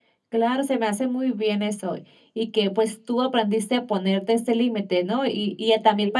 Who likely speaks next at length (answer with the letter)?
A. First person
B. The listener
A